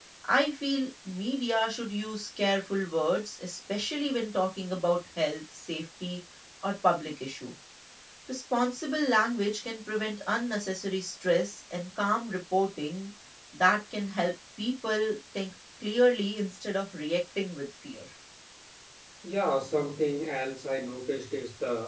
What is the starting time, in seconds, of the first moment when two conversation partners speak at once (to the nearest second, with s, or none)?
none